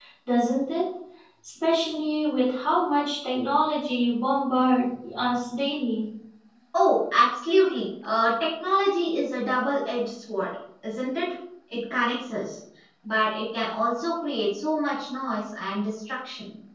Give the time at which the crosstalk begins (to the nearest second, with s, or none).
none